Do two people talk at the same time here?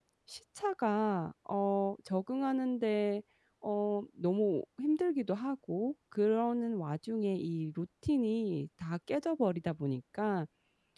No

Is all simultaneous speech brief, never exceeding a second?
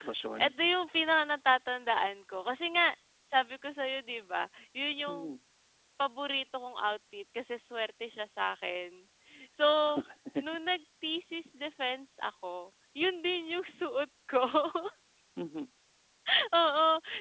Yes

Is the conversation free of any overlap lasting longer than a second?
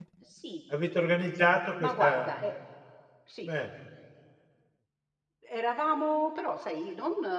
Yes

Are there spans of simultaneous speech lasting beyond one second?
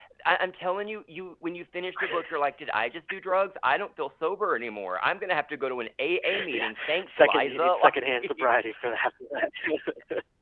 Yes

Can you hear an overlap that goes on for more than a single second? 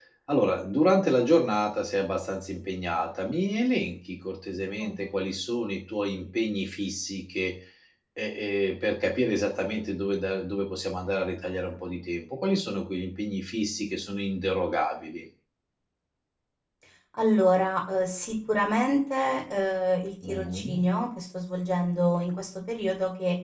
No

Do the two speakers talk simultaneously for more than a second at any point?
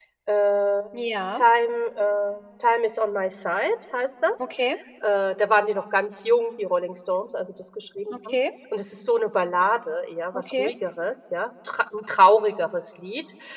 No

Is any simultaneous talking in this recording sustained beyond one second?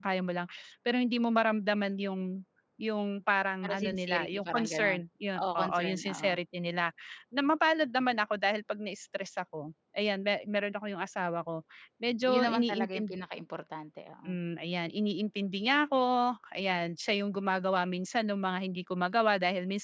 Yes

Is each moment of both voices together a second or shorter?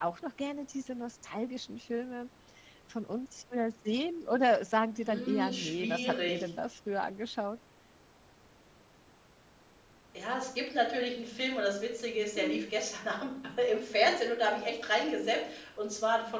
No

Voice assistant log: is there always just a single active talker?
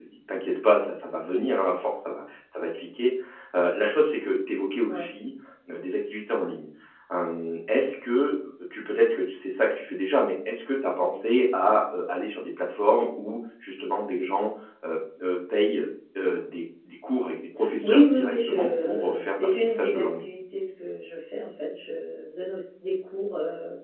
No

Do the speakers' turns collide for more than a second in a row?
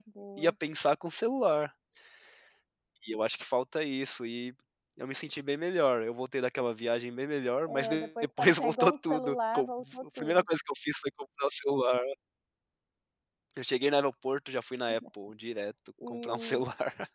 Yes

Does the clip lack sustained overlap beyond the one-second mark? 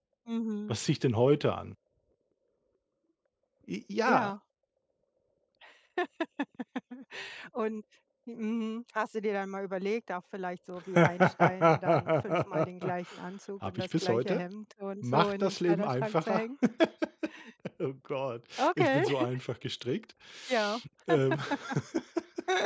No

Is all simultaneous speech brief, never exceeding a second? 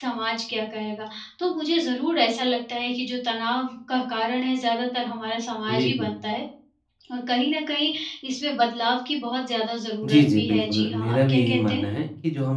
No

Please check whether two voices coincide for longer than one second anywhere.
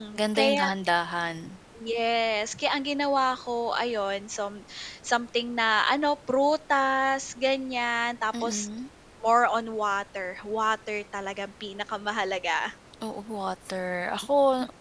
No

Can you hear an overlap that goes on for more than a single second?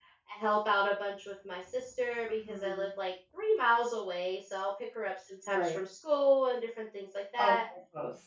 No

